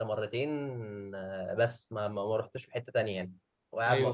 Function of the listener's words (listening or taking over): taking over